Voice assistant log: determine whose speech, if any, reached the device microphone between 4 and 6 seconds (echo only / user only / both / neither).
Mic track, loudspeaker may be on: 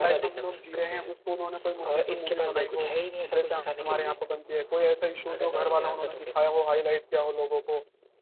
both